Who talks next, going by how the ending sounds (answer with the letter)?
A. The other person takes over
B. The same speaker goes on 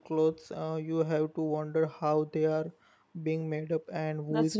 A